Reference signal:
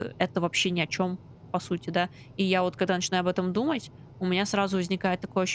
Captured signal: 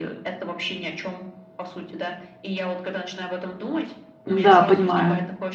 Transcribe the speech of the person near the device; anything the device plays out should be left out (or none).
Н-да, понимаю.